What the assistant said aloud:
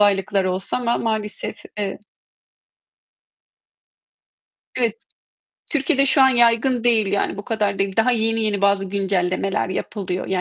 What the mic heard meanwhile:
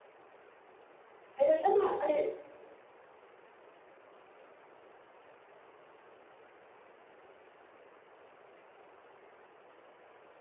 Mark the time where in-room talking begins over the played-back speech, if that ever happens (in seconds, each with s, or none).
1.4 s